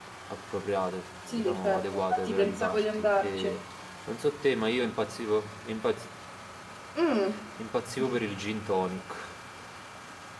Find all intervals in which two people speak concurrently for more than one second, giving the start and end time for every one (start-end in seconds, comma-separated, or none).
1.3-3.6